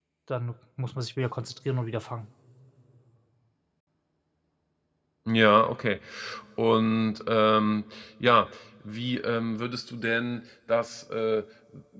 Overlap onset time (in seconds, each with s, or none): none